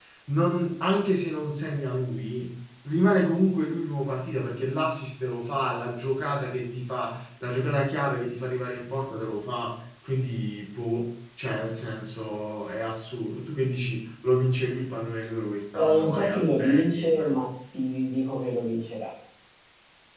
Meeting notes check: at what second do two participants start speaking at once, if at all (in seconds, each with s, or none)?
15.7 s